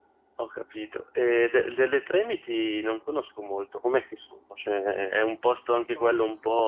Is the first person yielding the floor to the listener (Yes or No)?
No